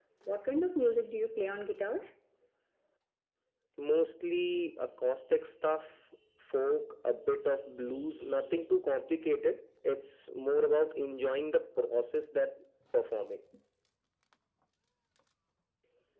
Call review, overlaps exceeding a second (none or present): none